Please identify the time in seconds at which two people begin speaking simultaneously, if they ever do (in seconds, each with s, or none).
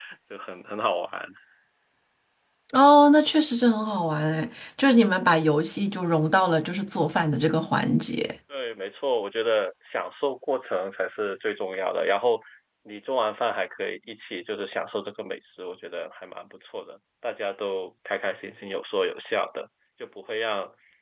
none